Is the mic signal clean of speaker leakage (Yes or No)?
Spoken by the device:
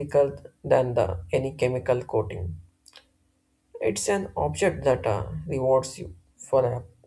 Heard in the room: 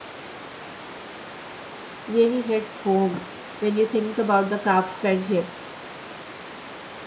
Yes